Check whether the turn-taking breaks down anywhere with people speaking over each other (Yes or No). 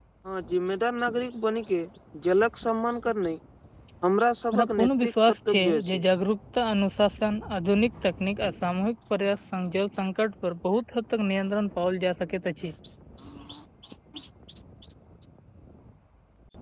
Yes